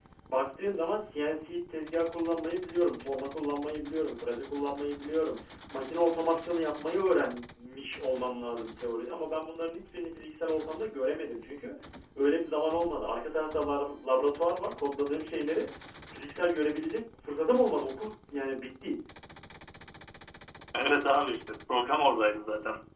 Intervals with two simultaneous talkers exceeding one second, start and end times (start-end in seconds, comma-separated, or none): none